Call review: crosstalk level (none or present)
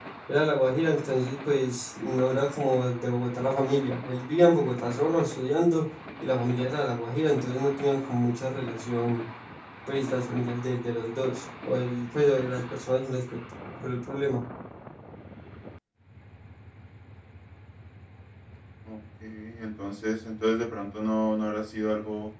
none